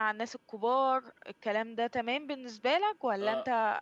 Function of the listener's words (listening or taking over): taking over